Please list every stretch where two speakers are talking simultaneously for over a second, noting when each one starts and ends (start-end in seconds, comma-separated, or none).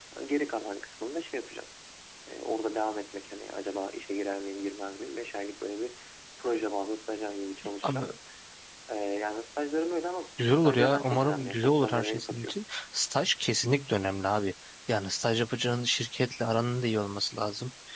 10.6-12.5